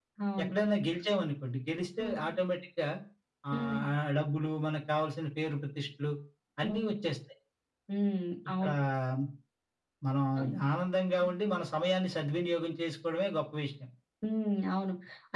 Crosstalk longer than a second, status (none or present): none